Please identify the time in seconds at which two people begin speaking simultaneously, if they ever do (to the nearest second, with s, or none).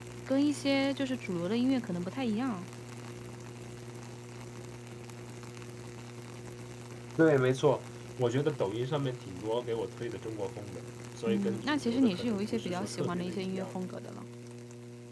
11 s